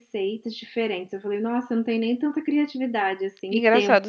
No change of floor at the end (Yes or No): No